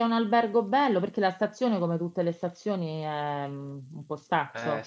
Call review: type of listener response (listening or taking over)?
taking over